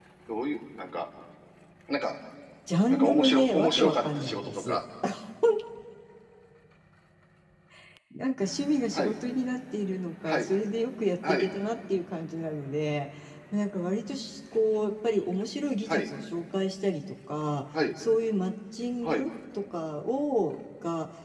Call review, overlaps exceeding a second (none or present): present